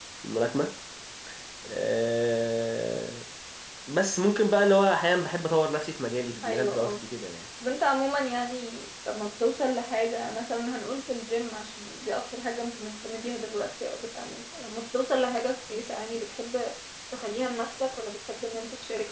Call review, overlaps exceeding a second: none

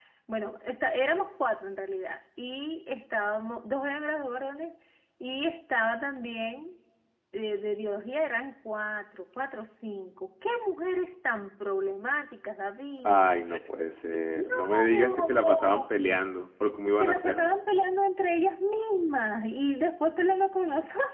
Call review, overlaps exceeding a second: present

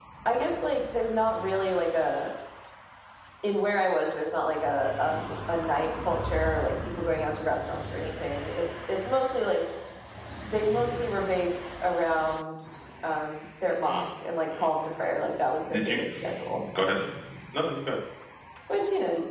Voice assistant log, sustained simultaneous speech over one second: none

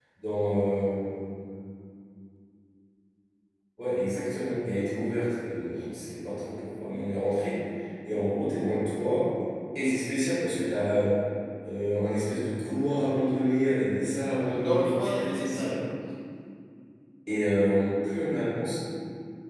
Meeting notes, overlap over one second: present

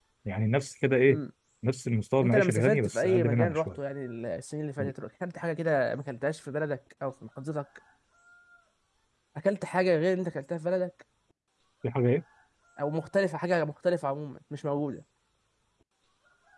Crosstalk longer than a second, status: present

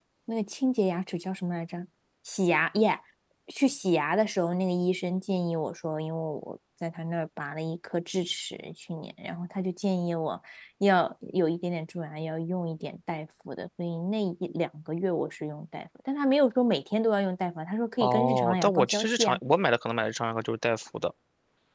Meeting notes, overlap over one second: present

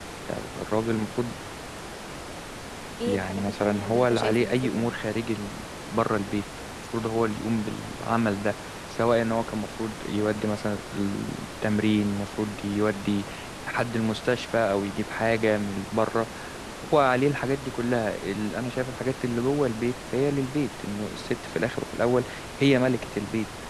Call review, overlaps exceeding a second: present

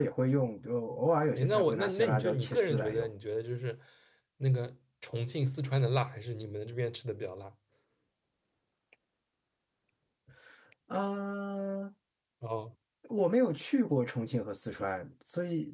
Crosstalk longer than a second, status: present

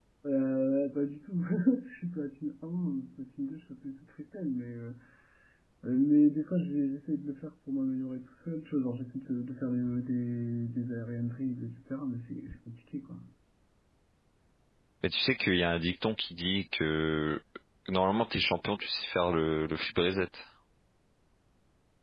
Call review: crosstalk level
none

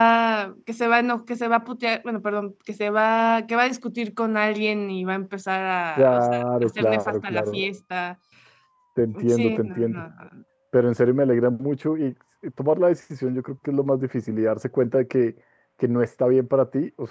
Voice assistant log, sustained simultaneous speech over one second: present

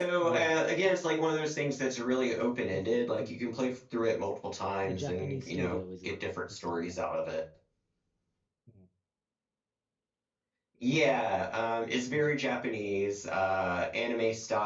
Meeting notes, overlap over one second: present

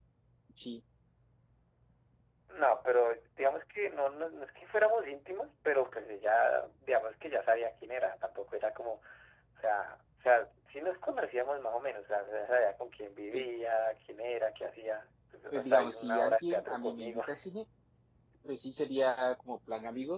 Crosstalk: present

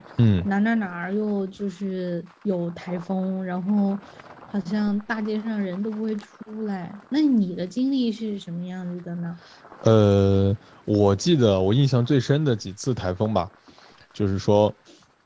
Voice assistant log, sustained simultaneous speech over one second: none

